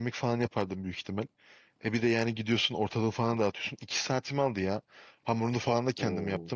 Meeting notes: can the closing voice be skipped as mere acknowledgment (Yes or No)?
Yes